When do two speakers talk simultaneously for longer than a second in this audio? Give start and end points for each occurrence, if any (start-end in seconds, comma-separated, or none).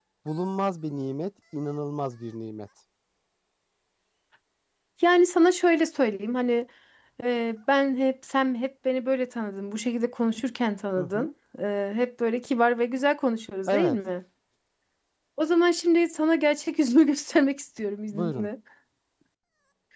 none